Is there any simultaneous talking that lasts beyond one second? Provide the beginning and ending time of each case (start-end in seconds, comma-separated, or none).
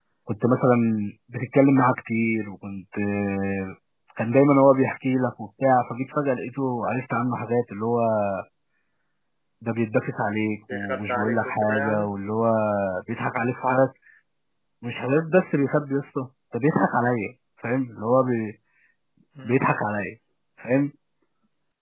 10.7-12.1